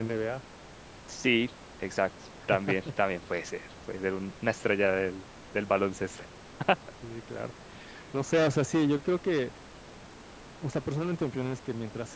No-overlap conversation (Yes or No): Yes